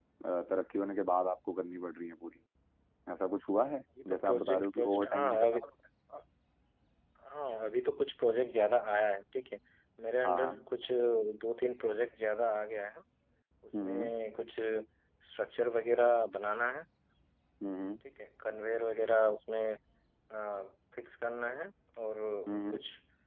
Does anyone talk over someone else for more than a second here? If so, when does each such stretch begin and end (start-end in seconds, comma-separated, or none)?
4.0-5.6